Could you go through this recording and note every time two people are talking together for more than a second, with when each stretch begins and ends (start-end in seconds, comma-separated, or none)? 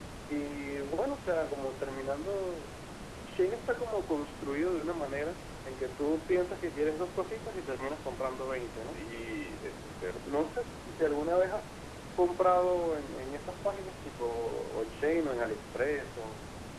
none